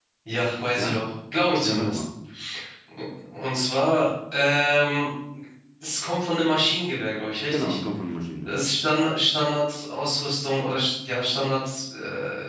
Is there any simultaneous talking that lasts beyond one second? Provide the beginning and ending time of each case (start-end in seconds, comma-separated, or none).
none